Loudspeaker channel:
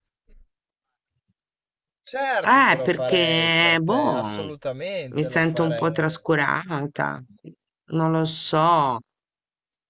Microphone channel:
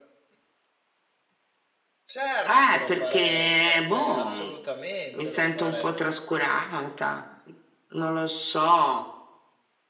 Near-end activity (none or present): none